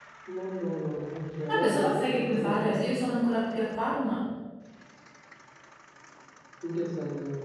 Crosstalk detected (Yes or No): Yes